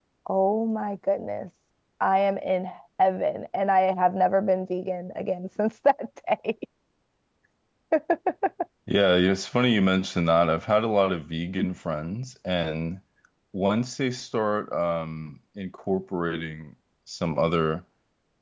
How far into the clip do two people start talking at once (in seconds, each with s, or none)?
none